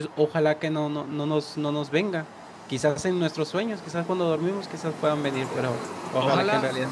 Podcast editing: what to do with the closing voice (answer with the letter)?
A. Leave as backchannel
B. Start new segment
B